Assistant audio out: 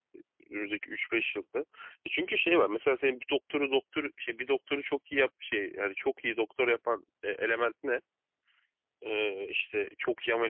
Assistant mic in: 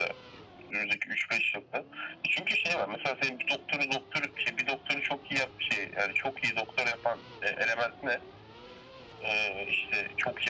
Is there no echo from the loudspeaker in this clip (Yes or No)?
No